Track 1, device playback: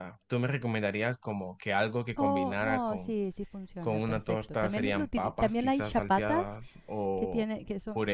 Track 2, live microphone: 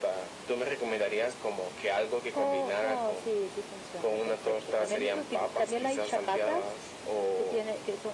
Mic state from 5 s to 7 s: echo only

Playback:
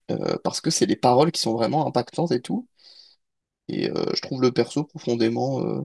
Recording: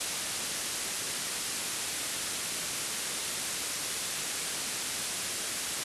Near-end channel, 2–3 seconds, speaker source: neither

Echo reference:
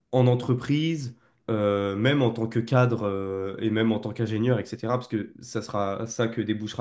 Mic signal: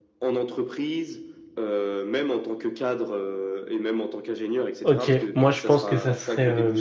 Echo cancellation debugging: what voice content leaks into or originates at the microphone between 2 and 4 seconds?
echo only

